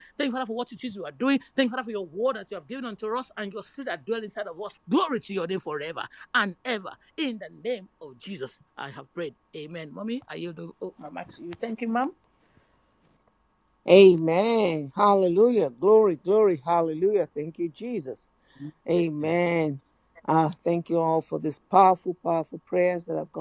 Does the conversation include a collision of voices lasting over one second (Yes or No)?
No